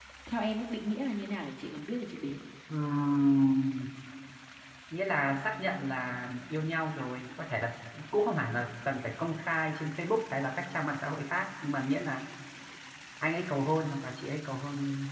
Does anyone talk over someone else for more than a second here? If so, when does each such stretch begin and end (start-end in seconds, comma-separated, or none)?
none